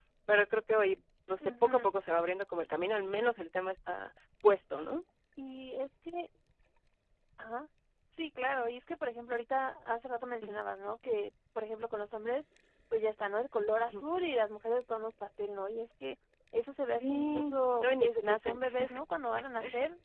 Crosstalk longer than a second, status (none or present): present